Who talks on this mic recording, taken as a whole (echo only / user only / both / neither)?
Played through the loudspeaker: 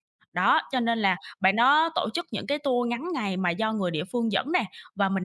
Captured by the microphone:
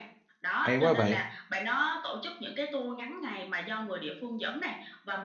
both